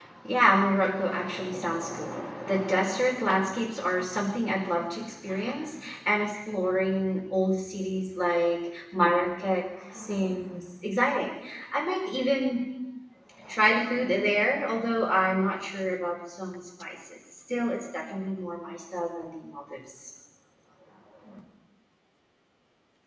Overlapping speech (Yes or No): No